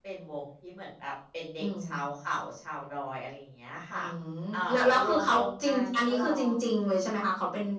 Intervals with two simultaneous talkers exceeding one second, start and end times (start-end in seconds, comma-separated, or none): 4.5-6.5